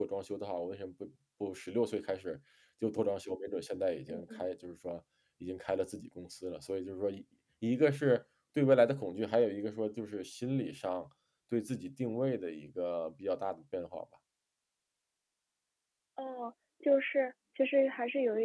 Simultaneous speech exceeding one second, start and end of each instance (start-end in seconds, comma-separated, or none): none